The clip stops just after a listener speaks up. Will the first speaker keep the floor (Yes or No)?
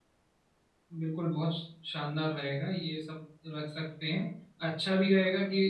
Yes